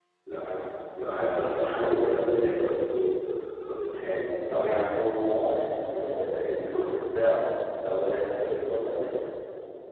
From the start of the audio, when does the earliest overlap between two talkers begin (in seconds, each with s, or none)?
none